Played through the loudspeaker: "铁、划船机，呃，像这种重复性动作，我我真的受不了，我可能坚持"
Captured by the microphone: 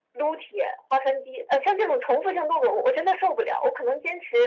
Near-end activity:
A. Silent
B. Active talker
A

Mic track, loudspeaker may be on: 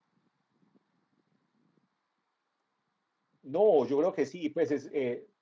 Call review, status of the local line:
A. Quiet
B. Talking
B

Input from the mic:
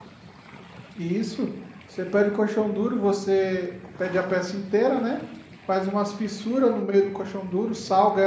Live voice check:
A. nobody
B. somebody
B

